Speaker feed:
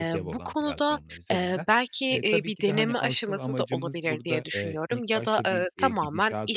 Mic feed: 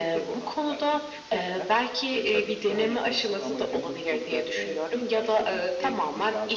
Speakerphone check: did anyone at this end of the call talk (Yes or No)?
No